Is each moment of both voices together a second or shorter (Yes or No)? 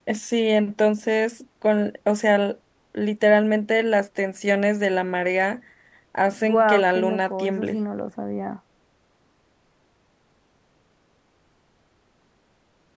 No